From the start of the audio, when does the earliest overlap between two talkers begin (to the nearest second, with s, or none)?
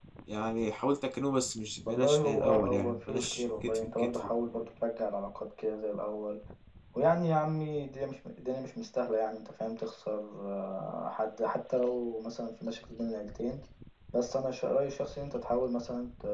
2 s